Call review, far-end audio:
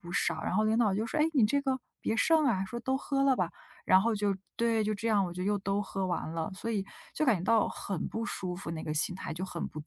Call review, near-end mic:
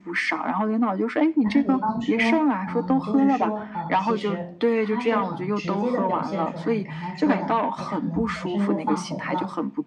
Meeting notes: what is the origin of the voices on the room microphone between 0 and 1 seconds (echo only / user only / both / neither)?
echo only